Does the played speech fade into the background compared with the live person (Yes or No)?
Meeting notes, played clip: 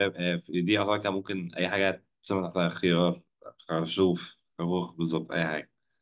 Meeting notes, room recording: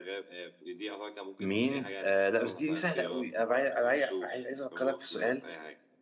Yes